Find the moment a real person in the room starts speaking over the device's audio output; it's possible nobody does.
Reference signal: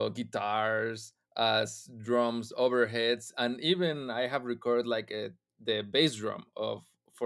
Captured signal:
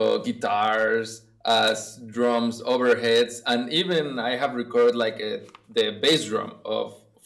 none

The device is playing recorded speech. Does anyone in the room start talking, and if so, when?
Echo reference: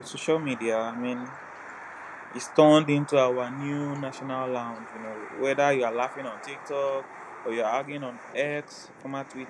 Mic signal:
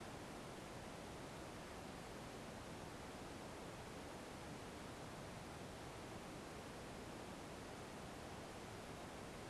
none

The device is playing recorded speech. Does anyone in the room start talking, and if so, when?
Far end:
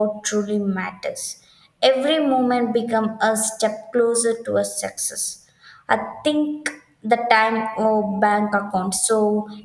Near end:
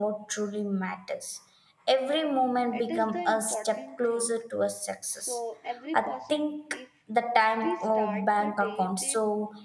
2.7 s

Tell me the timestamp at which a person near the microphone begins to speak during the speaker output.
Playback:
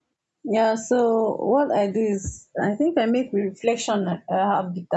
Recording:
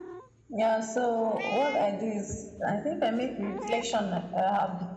none

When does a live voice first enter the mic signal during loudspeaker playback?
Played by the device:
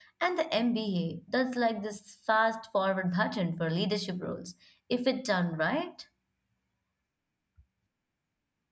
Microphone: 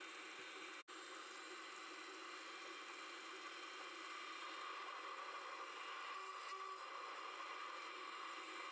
none

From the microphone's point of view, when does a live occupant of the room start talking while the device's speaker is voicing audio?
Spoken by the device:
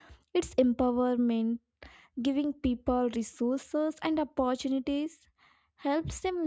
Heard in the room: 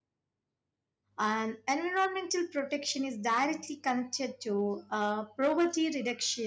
1.2 s

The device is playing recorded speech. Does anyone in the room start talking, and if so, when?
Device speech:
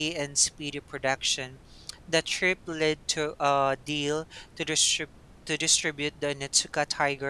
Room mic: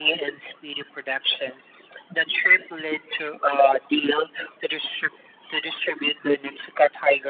none

